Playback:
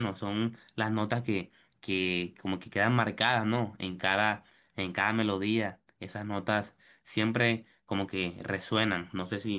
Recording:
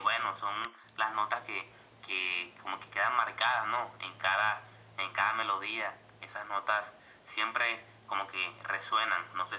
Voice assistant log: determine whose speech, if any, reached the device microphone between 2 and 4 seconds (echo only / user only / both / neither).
echo only